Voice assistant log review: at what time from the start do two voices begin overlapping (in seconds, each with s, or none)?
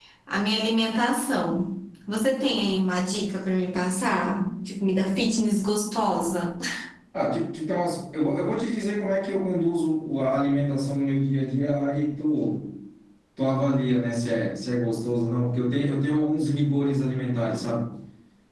none